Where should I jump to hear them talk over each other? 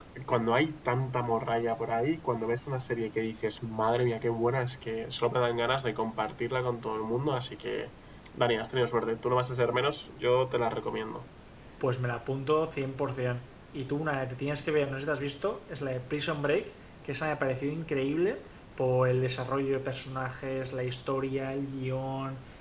none

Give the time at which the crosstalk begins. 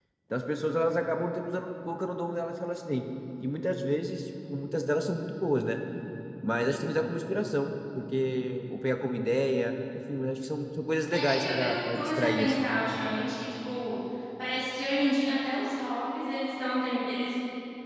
11.1 s

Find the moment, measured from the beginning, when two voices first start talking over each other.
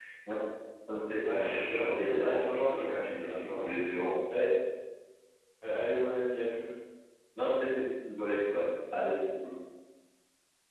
1.2 s

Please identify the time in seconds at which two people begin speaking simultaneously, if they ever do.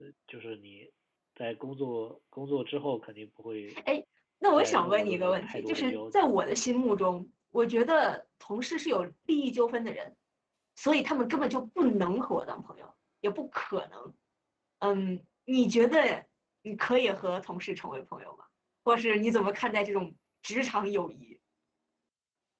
4.6 s

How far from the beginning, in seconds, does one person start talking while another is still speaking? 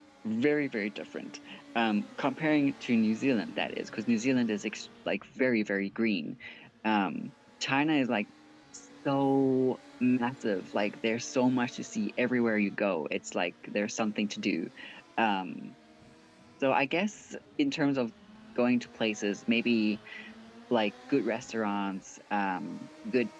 none

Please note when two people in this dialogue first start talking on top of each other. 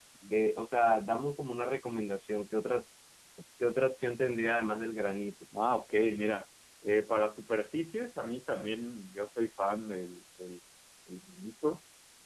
none

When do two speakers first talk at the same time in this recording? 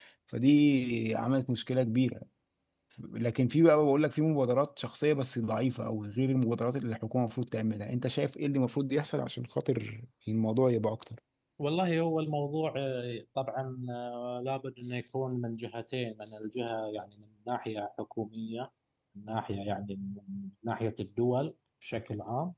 none

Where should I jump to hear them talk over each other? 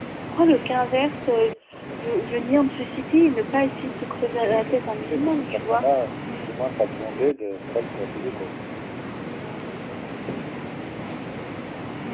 4.3 s

